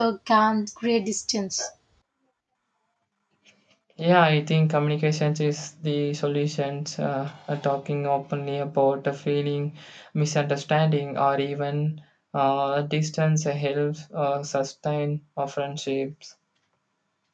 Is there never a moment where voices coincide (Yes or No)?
Yes